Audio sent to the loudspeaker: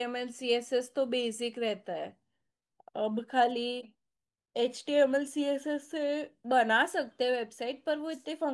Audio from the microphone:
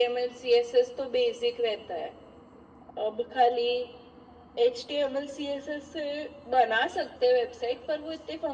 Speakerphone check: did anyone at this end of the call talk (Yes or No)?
No